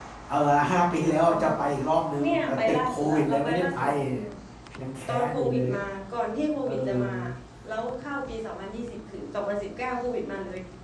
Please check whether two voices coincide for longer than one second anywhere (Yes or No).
Yes